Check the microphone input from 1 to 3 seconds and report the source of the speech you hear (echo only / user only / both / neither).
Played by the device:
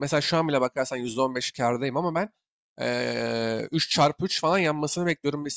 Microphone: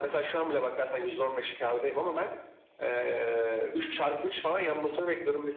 echo only